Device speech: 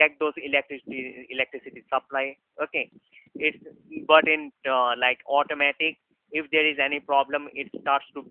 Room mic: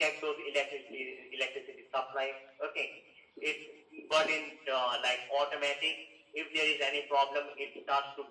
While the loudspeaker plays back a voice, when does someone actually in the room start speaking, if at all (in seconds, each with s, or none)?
none